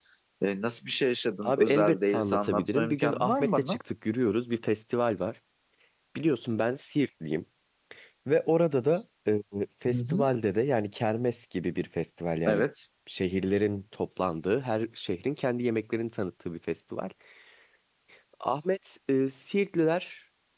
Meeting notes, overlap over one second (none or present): present